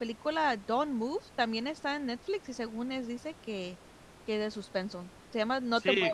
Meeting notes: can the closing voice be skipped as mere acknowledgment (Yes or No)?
No